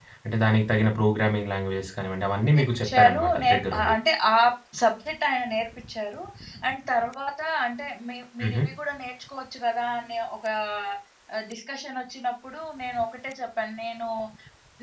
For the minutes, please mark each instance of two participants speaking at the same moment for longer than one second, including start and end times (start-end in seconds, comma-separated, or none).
2.5-3.9